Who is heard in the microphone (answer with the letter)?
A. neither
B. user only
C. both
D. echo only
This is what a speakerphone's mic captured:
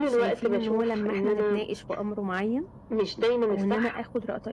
C